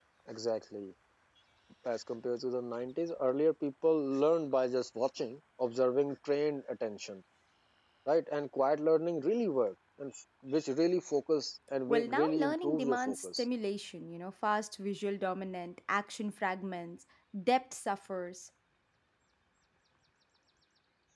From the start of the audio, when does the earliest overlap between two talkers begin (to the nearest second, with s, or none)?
12 s